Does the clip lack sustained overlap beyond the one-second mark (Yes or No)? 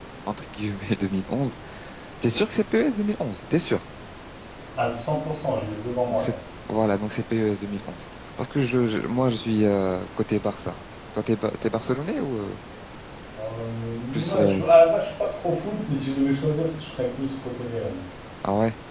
Yes